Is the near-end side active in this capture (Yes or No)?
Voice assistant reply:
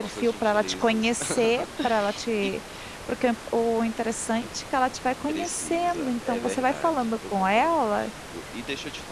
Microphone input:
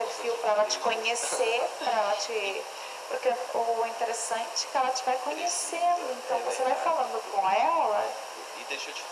No